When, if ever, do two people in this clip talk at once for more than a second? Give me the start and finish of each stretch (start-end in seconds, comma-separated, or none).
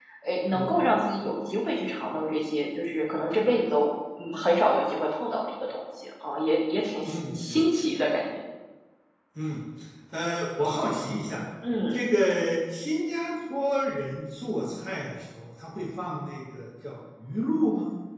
none